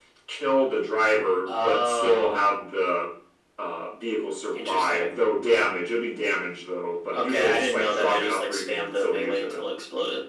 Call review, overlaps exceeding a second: present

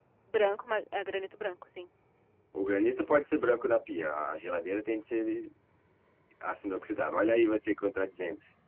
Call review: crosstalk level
none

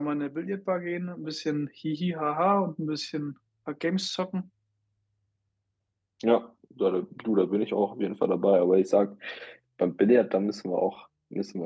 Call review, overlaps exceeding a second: none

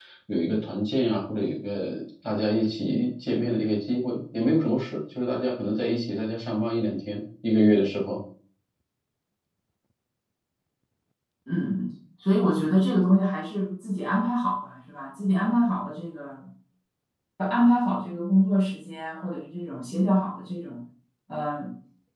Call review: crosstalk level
none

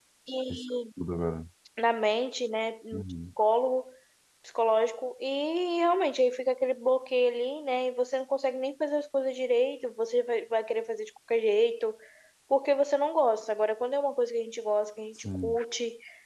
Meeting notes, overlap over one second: none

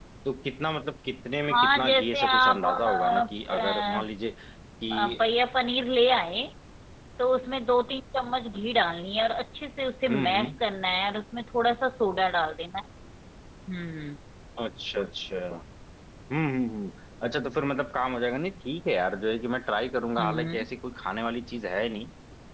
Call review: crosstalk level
present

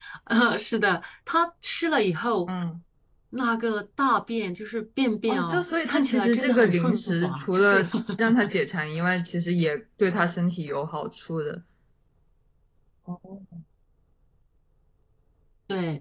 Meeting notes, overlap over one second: present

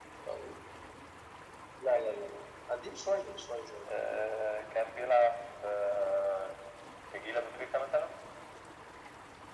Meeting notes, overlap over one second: none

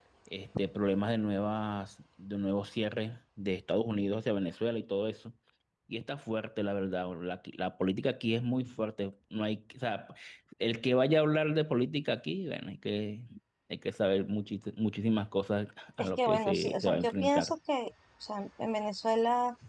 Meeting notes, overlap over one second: present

